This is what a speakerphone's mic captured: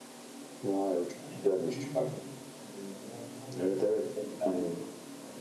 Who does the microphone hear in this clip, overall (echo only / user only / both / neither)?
both